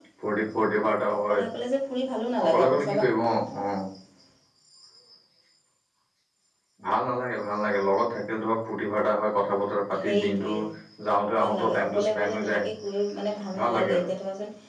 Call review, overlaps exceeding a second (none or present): present